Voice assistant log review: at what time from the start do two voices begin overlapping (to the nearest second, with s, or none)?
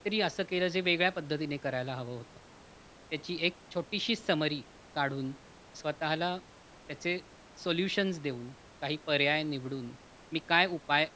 none